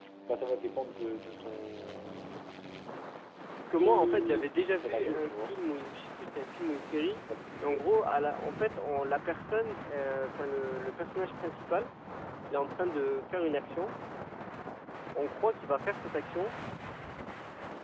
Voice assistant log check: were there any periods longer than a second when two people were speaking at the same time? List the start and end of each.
3.7-5.5

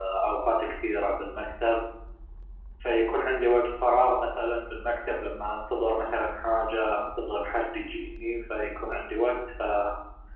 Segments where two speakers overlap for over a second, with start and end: none

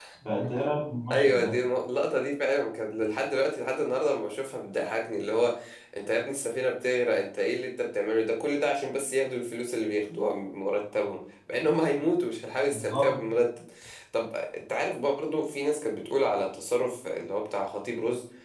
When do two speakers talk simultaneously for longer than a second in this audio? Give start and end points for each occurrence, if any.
none

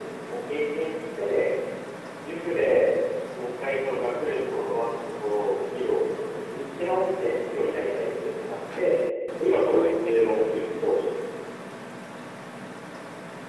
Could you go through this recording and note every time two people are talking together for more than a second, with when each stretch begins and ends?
9.5-11.1

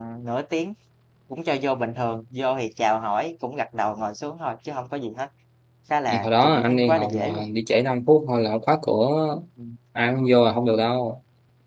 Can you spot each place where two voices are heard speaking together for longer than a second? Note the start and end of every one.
6.1-7.4

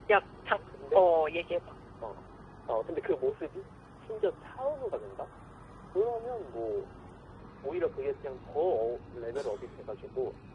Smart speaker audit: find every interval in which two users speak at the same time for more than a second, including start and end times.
none

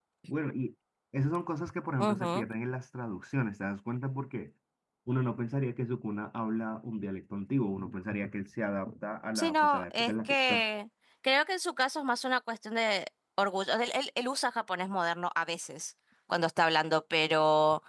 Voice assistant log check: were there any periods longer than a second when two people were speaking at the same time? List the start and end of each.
9.3-10.7

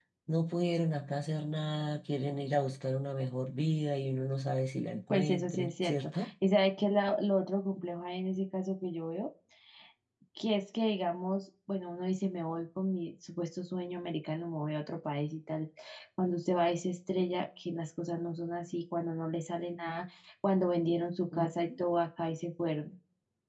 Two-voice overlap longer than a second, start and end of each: 5.1-6.3

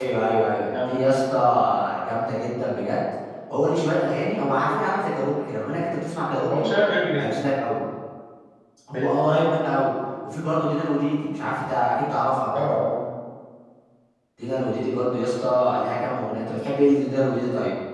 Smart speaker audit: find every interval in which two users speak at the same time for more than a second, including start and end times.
none

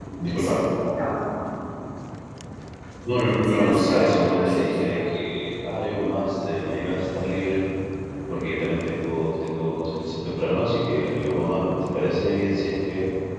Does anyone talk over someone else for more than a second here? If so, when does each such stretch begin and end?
3.5-5.0

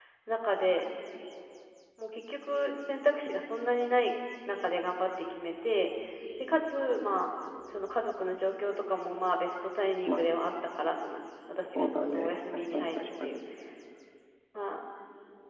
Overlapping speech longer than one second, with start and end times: 11.8-13.3

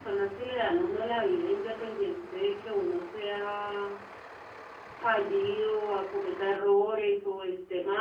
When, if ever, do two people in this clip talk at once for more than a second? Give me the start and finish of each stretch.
none

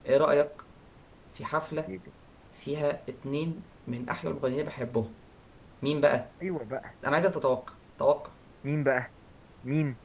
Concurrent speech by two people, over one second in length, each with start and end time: none

